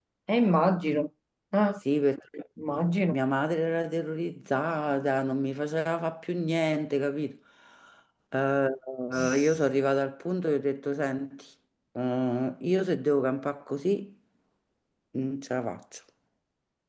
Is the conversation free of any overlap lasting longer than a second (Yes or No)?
Yes